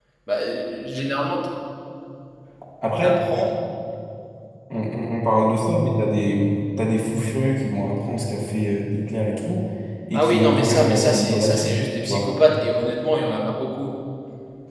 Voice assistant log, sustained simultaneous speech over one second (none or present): present